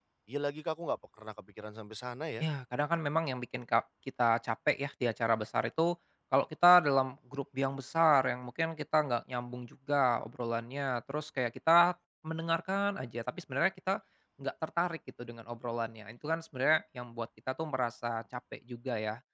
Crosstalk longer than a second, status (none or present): none